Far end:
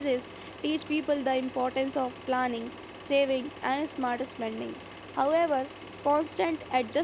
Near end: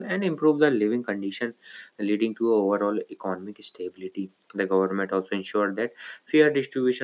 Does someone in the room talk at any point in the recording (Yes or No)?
Yes